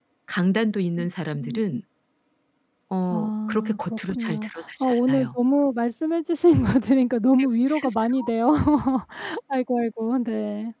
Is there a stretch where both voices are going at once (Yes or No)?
Yes